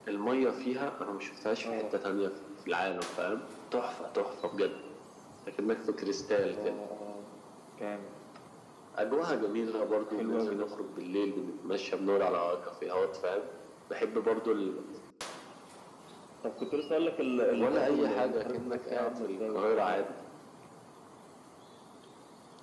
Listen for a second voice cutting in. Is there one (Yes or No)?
Yes